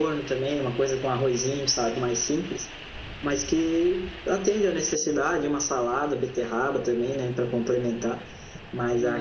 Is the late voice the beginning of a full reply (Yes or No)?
Yes